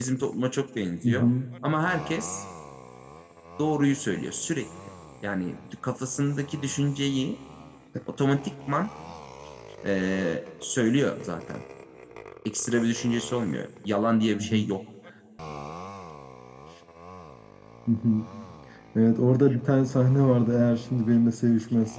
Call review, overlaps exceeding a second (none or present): none